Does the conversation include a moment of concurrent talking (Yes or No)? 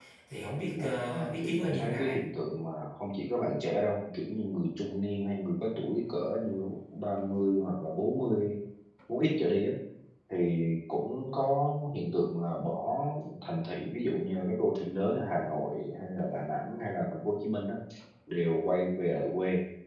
Yes